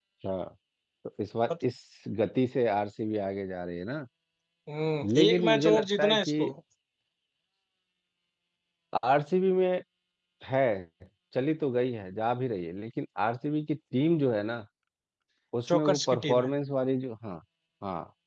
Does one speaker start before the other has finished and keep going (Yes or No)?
Yes